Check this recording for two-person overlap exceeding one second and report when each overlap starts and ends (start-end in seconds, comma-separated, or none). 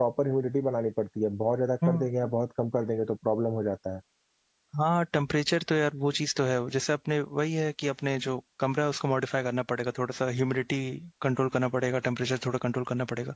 none